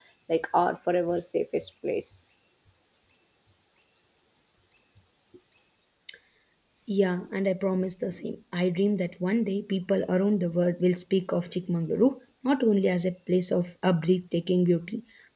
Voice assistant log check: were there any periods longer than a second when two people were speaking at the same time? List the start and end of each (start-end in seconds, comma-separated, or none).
none